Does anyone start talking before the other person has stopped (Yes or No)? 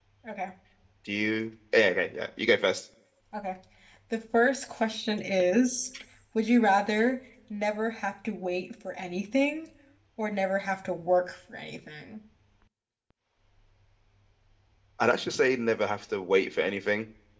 No